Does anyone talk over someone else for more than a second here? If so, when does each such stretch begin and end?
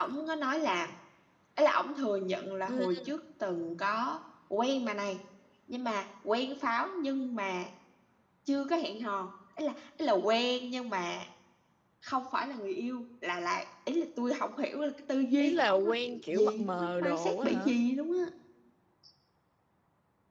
15.4-17.8

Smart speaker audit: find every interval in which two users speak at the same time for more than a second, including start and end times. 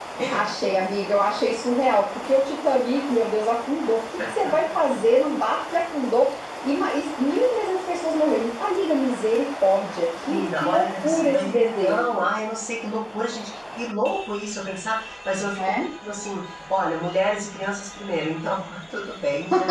10.3-12.2

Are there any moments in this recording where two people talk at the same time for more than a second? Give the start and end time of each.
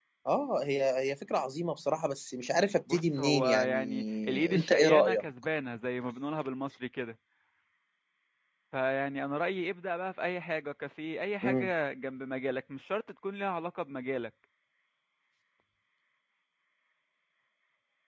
2.9-5.2

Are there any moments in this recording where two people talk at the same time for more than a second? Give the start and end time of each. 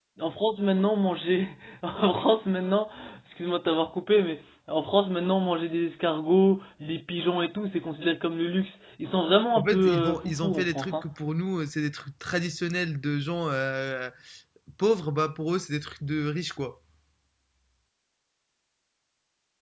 9.6-11.0

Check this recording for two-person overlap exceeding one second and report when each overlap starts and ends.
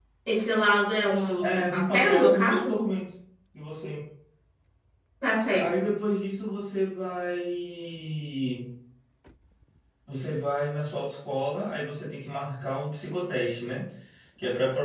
1.4-2.8

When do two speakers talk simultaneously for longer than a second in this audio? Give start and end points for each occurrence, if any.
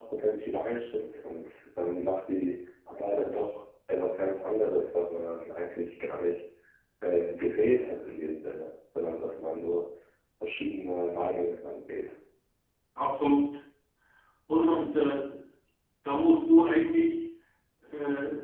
none

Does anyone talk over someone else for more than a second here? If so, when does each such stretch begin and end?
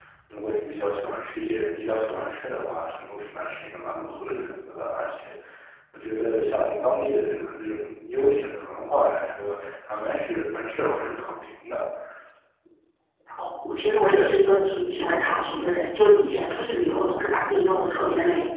none

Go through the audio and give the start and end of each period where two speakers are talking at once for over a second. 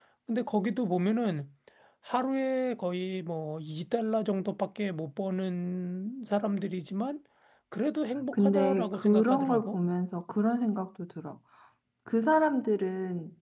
8.3-9.8

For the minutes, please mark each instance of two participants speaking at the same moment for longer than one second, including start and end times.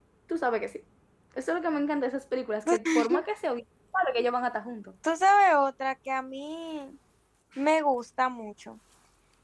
none

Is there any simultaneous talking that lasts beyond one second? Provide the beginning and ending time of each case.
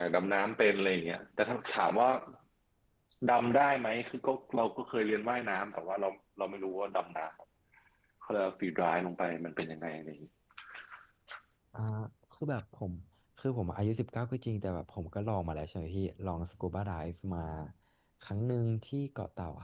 none

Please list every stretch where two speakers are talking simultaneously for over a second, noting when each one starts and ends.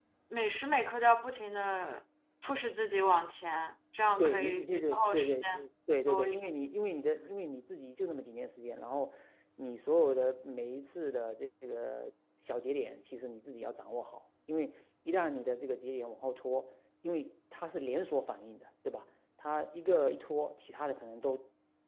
4.2-5.6

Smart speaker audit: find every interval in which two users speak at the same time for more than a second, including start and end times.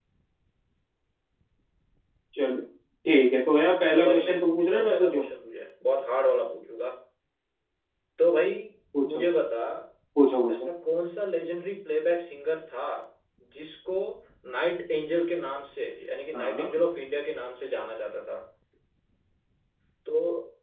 3.9-5.2

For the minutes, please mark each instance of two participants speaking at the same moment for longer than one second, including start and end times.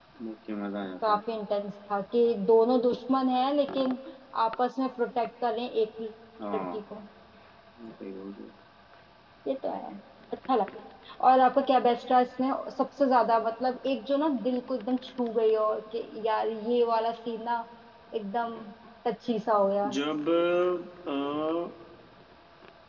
none

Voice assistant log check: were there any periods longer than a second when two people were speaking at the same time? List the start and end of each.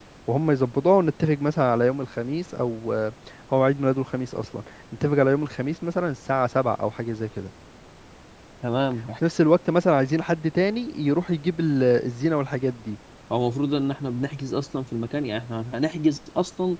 none

